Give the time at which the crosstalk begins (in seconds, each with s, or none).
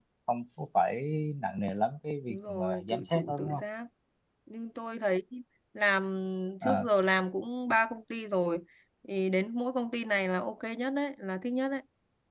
2.3 s